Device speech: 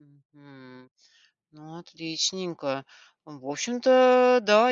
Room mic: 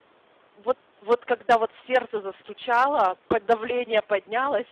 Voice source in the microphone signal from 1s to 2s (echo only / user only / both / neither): user only